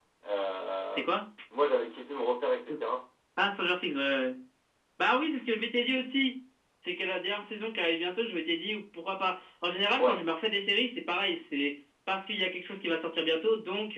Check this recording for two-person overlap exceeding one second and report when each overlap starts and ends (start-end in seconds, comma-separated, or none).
none